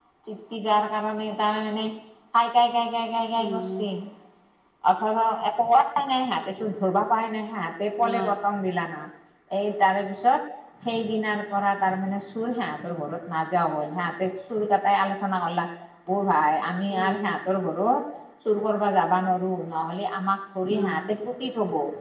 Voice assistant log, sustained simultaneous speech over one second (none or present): none